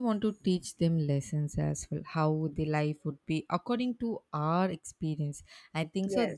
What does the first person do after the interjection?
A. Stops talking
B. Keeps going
B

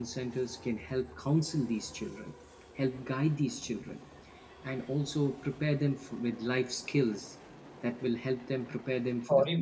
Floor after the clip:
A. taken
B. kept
A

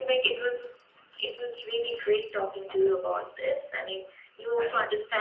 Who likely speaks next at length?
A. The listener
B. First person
B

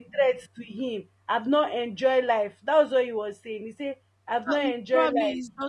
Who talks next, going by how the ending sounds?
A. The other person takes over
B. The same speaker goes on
A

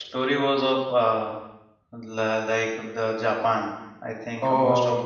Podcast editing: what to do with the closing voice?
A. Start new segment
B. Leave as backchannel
B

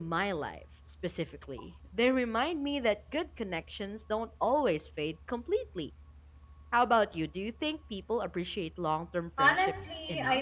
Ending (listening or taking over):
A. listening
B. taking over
B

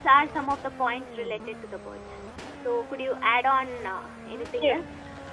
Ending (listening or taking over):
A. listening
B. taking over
B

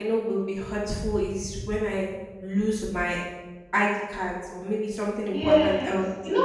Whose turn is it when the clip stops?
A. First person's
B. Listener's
B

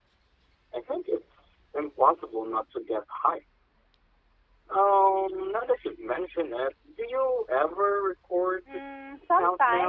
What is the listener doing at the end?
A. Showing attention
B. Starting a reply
B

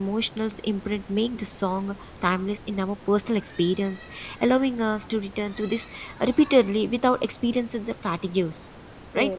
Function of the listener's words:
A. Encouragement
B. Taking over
B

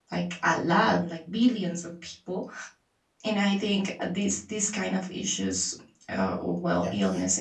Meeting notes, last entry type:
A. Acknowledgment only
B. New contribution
A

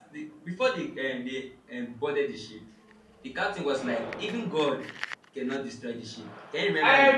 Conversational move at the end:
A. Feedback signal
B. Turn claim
B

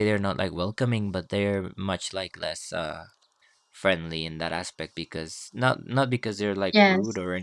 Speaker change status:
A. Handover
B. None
B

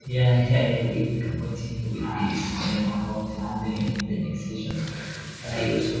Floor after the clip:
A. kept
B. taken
A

